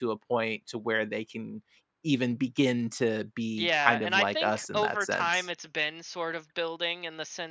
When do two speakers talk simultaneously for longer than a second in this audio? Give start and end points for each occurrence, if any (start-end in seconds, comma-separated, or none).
3.6-5.4